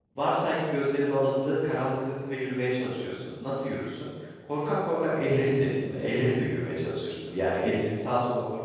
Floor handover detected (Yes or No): No